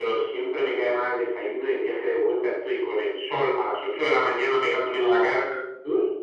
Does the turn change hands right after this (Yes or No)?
No